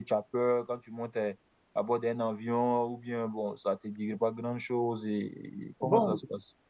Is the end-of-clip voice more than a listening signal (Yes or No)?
Yes